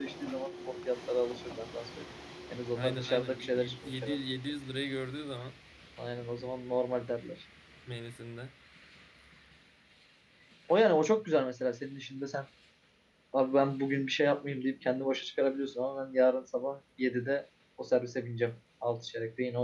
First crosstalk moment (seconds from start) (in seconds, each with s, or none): 2.8 s